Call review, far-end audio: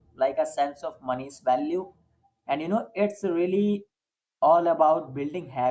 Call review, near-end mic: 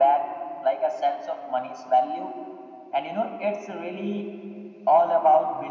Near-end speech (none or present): none